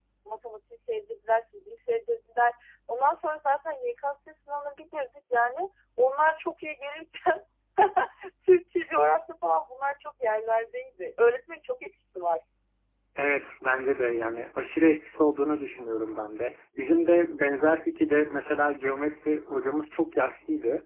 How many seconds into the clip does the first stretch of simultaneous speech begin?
none

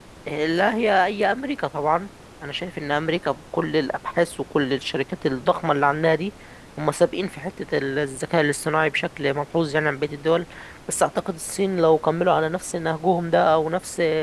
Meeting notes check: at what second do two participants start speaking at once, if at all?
none

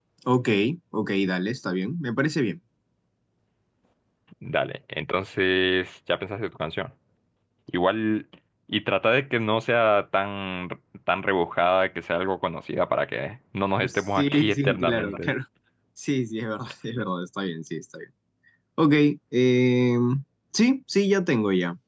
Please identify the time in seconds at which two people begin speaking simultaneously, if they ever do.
13.8 s

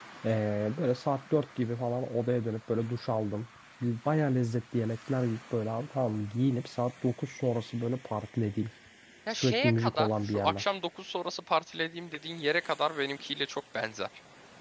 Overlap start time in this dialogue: 9.3 s

